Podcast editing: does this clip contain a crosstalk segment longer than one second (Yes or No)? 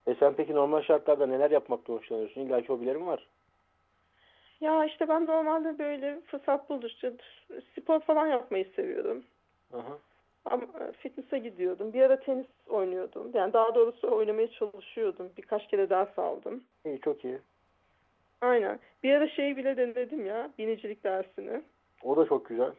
No